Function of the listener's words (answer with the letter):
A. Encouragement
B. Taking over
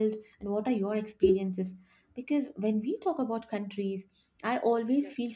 A